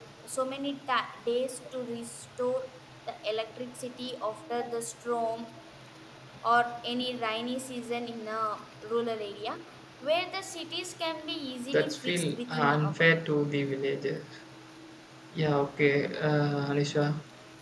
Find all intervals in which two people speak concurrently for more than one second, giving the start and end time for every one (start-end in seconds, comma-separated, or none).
11.7-13.1